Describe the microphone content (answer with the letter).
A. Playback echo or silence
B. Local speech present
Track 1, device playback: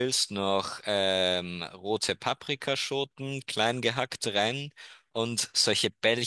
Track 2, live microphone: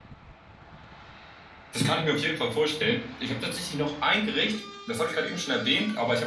B